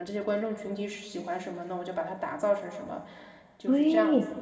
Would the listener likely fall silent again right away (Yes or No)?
No